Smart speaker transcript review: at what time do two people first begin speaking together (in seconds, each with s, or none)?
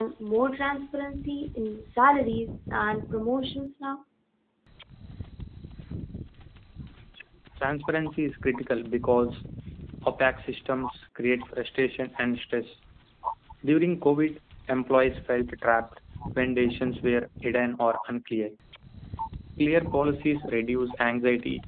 none